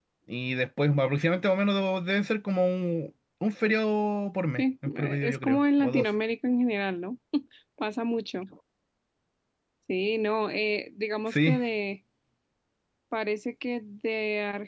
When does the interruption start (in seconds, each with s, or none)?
4.6 s